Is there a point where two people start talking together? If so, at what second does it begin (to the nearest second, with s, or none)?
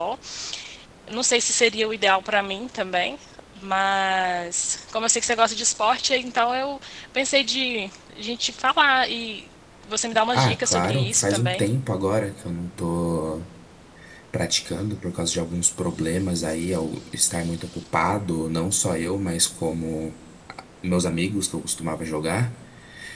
10 s